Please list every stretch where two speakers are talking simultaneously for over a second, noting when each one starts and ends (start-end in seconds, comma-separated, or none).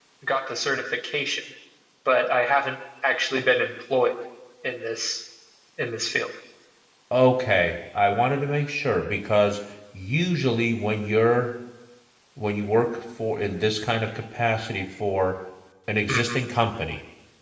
none